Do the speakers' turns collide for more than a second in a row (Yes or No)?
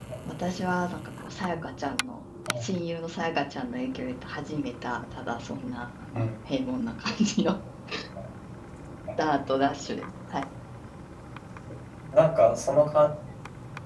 No